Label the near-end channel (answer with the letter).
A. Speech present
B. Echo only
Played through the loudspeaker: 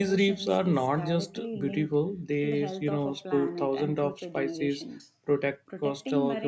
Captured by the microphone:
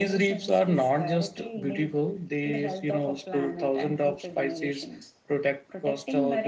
B